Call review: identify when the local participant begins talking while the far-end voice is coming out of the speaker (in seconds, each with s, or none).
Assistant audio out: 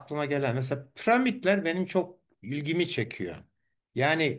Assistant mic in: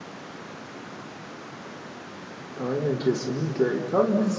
2.6 s